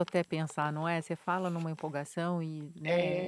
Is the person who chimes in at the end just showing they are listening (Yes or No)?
No